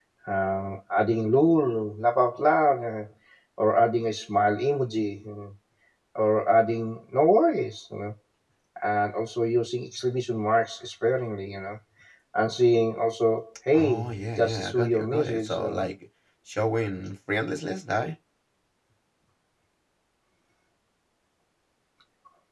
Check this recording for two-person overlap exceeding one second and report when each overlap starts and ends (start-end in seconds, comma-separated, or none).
13.7-15.9